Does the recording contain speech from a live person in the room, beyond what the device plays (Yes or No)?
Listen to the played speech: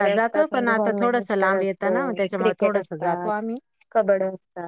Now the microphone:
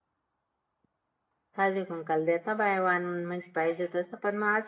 Yes